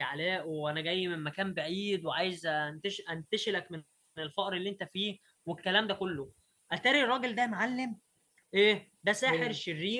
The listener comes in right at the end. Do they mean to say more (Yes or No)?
No